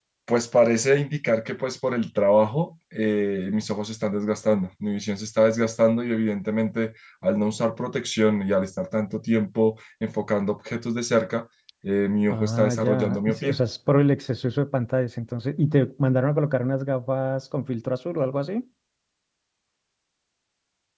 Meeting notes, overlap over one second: present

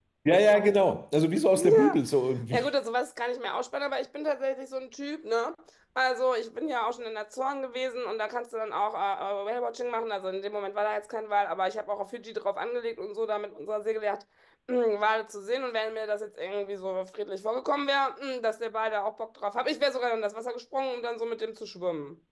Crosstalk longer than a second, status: none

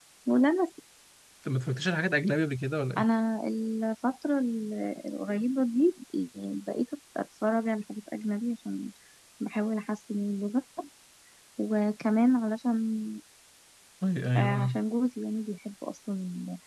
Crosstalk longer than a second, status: none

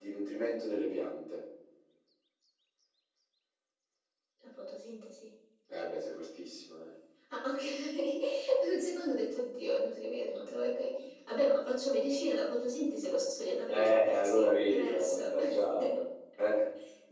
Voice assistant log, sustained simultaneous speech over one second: present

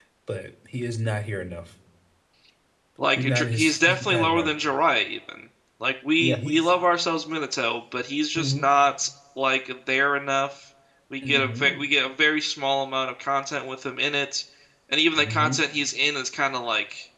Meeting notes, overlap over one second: present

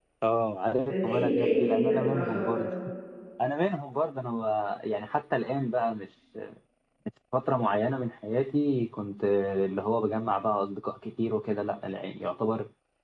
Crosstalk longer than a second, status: present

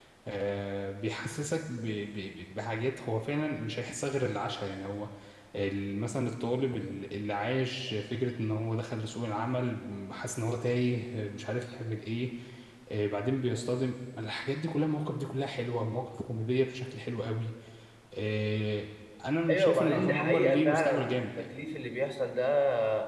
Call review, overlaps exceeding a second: present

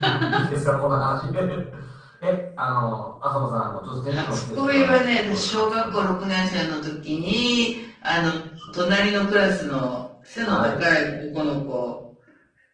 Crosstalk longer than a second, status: present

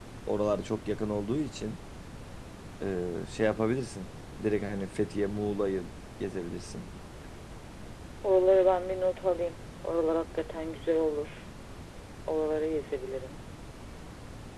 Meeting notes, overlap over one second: none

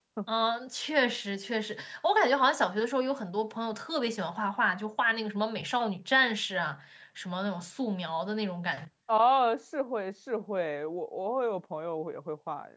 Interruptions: none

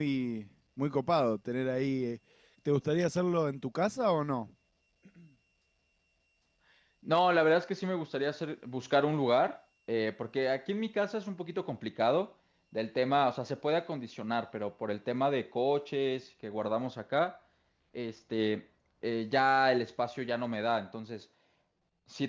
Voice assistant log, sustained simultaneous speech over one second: none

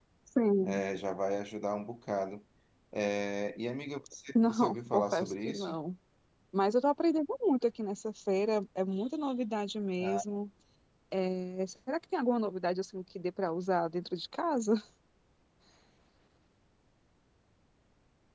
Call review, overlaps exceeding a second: present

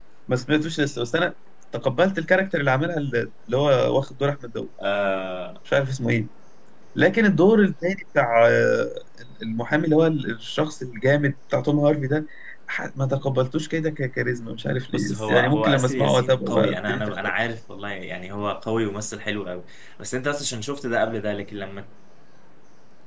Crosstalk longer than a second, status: present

